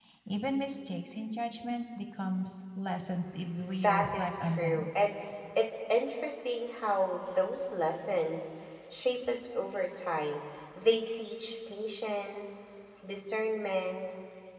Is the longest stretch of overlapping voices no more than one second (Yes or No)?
No